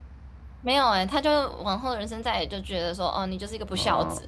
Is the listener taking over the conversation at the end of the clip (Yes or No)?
Yes